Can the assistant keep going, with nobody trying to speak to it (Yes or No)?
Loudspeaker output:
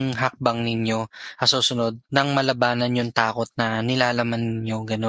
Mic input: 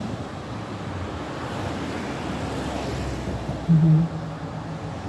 No